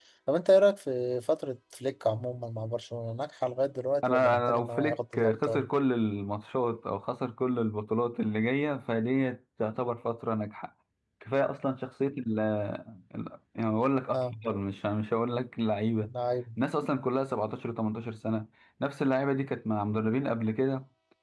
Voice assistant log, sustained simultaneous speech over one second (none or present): present